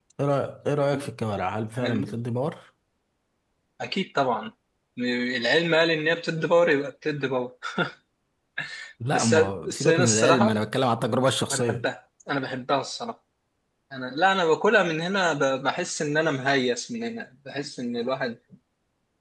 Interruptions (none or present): present